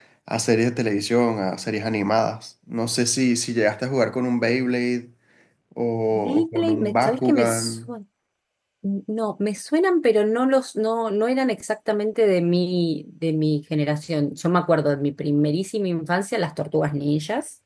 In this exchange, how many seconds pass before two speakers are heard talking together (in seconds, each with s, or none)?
6.1 s